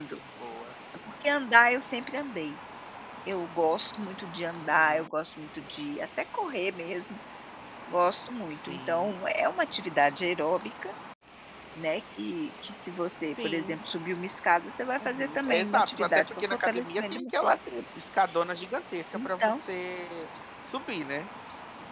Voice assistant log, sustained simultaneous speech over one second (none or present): present